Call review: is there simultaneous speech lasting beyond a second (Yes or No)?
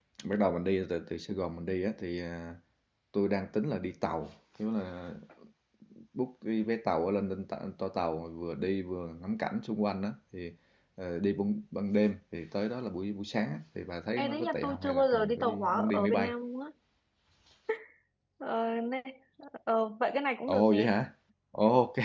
Yes